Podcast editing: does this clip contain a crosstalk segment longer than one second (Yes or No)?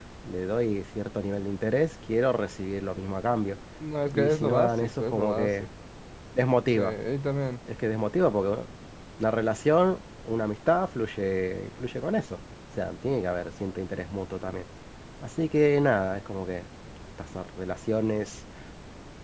Yes